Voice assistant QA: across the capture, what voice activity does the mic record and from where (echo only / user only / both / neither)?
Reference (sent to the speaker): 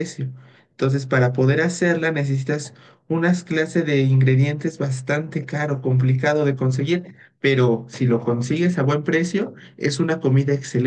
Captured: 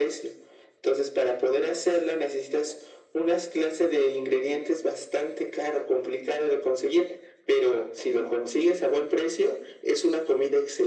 echo only